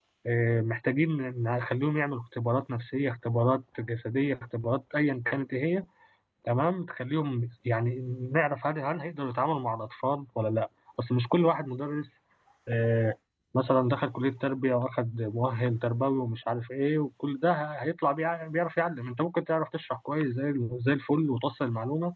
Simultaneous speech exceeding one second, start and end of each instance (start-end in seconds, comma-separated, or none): none